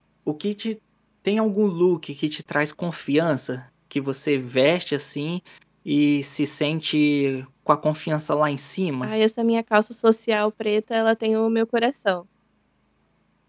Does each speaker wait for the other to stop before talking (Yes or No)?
Yes